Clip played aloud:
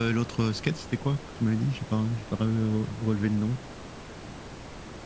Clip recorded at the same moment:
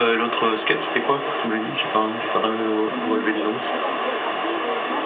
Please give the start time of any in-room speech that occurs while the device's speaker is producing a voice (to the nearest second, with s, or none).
3 s